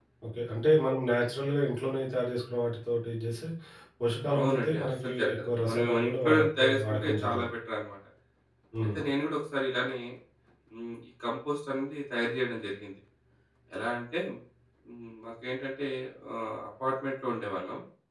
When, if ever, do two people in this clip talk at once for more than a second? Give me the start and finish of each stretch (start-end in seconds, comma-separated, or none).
4.4-7.5